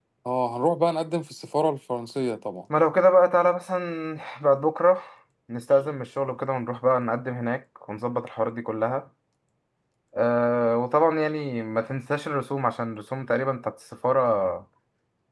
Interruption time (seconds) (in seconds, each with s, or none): none